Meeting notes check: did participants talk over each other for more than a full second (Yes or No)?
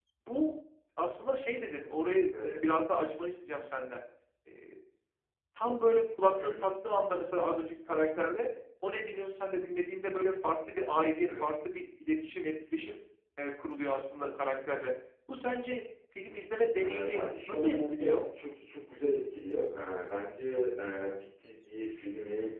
Yes